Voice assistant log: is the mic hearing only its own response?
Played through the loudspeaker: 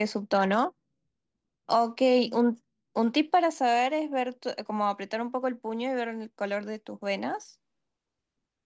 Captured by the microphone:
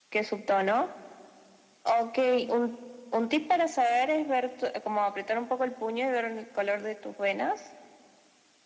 Yes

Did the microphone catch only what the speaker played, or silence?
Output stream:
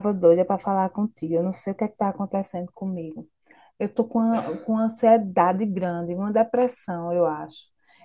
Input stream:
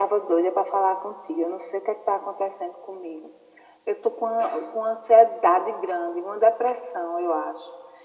Yes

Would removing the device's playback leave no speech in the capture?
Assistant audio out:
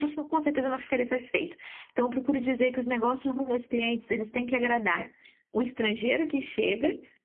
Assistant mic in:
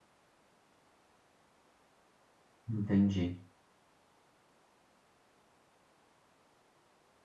No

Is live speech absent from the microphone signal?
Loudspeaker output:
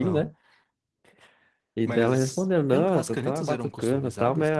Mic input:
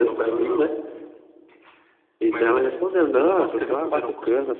Yes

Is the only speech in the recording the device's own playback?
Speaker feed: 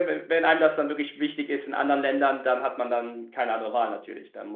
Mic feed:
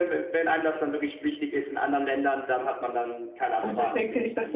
No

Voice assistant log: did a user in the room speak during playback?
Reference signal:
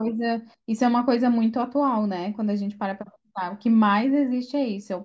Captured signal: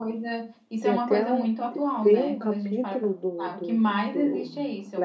Yes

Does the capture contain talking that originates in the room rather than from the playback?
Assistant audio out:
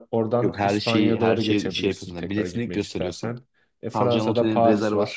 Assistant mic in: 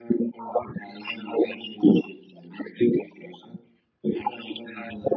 No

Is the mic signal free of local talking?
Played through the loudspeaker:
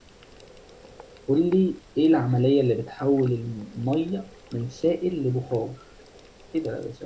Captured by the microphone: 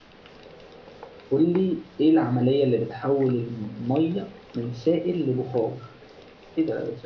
Yes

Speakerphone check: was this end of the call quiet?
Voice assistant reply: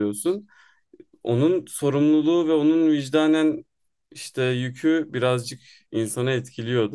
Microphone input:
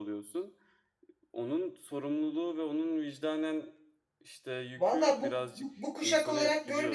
No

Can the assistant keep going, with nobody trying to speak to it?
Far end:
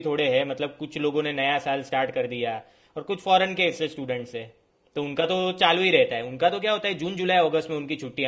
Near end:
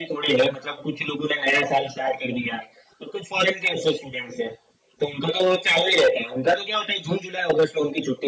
Yes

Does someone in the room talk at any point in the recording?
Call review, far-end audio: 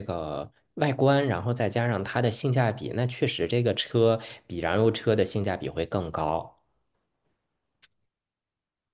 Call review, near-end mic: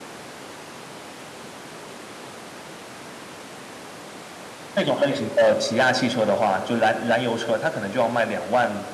Yes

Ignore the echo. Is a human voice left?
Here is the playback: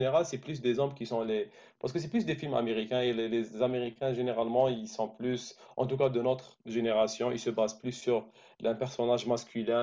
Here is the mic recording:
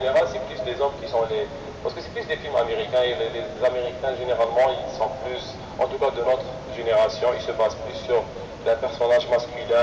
No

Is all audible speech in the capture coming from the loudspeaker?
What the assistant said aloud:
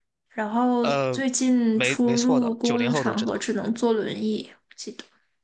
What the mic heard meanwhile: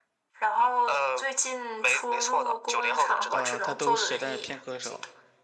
No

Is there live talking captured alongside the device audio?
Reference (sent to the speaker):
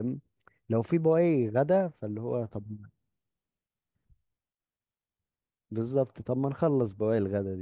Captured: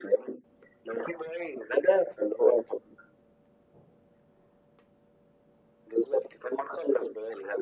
No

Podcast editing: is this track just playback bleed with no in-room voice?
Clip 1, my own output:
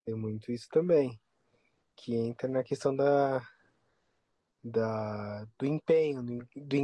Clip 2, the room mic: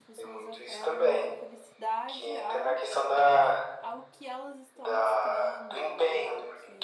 No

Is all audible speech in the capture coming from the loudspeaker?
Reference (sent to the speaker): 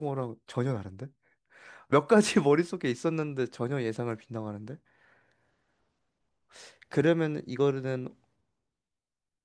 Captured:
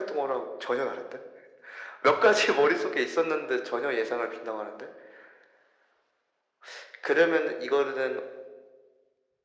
Yes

